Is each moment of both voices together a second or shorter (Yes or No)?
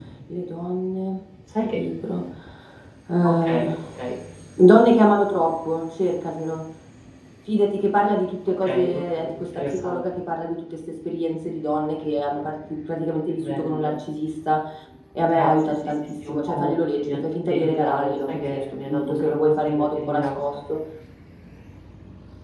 No